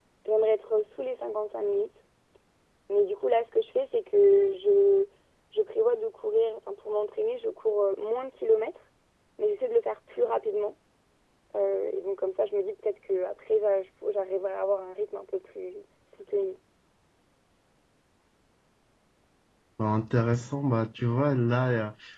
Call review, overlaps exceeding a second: none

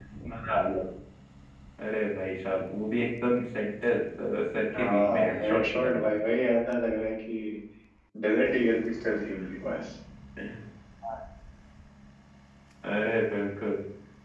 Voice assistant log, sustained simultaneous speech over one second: present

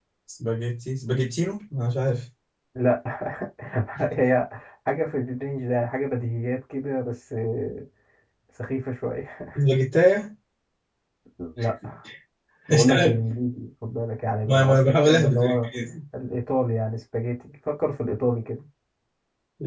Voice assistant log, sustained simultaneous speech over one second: present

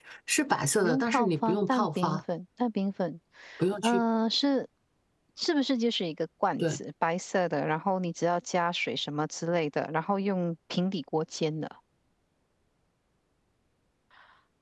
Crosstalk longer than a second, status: present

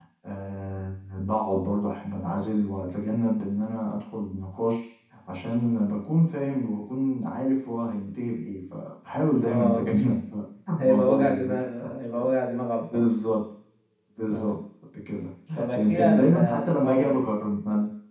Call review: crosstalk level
present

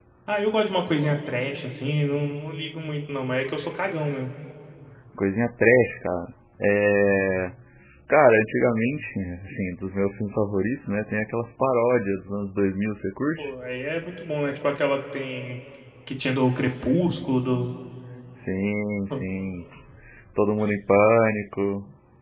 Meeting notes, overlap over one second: none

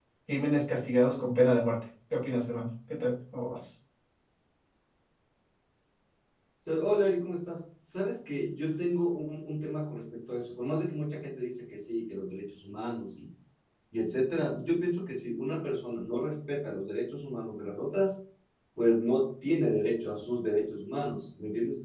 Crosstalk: none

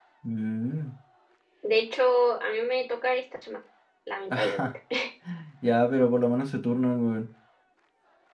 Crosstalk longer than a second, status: none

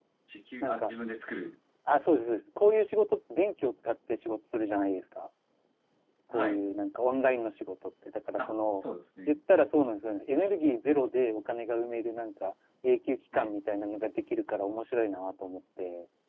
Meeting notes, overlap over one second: none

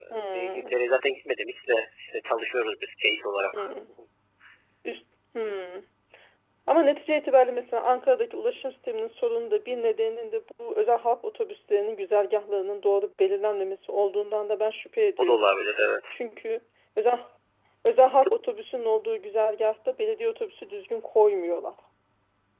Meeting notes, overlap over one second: none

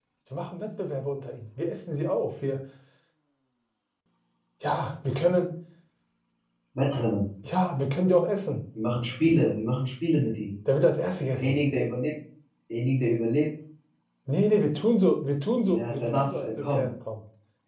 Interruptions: present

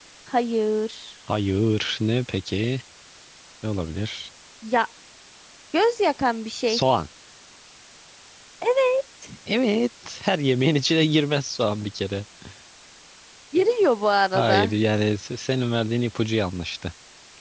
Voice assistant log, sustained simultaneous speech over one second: none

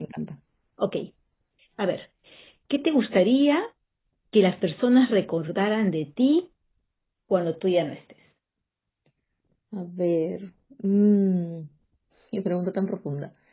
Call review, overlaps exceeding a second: none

